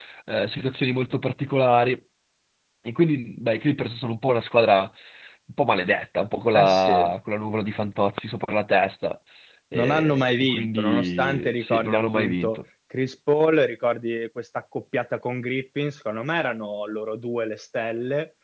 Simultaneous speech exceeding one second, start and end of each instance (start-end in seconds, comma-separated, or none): 9.7-12.6